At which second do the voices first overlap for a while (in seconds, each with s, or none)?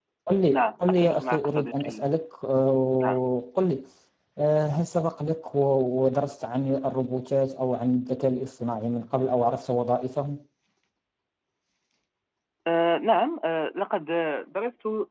0.5 s